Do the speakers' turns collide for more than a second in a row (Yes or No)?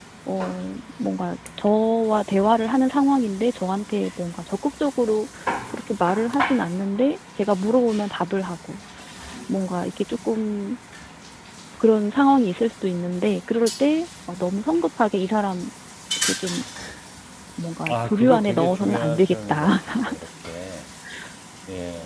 Yes